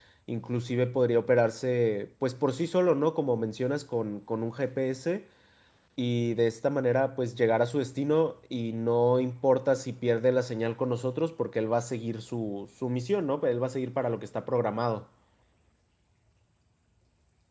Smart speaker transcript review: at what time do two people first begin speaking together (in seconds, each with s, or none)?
none